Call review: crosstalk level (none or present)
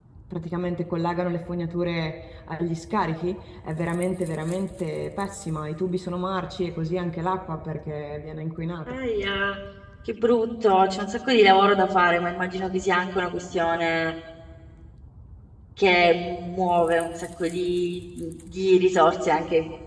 none